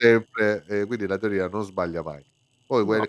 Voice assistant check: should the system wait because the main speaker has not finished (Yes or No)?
Yes